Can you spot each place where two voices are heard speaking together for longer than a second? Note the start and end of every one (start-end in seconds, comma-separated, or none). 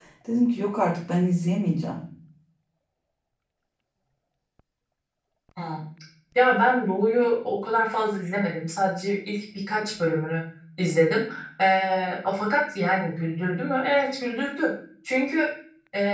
none